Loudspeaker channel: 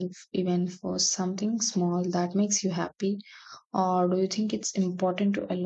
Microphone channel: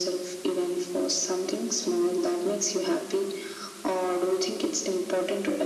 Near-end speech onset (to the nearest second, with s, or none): none